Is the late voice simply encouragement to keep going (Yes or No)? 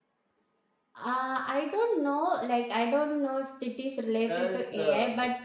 Yes